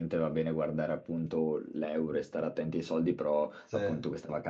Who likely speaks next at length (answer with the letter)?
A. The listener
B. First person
B